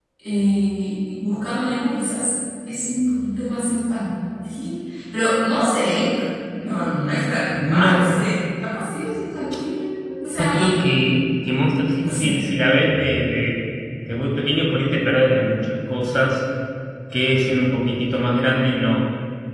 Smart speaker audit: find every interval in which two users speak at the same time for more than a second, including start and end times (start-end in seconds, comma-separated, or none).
none